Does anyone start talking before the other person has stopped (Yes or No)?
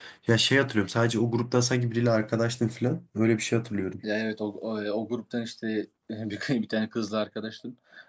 No